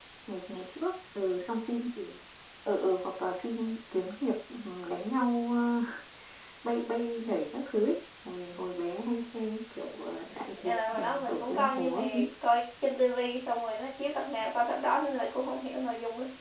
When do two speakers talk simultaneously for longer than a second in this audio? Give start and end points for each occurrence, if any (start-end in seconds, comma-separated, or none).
10.6-12.0